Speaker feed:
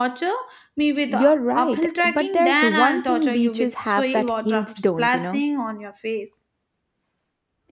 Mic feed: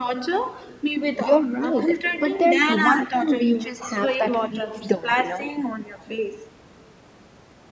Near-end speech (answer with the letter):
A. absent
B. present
A